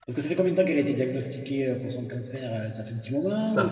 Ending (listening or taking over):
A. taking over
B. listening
A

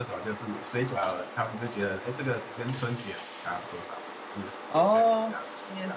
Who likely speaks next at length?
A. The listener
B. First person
A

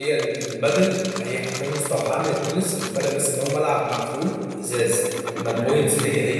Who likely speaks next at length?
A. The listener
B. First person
B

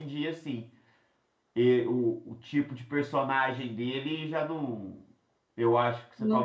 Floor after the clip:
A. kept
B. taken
A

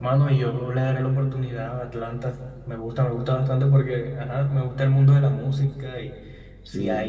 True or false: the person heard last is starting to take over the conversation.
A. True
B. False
B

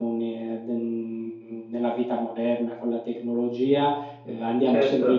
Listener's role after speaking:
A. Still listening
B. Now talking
A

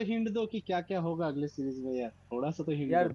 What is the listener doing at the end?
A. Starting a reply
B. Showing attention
A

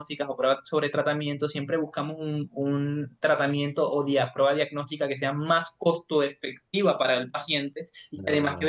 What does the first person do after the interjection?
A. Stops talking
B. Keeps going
B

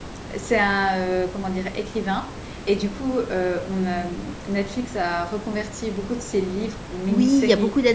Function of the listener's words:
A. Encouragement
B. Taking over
B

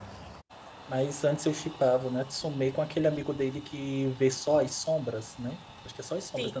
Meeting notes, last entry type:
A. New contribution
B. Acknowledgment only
A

